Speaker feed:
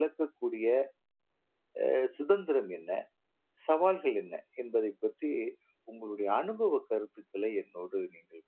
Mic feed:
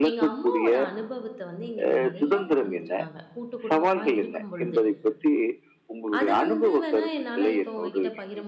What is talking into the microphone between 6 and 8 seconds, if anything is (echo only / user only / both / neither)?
both